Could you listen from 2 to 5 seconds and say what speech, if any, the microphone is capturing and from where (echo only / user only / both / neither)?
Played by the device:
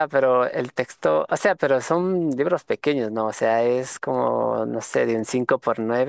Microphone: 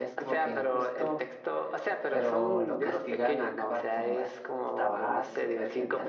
both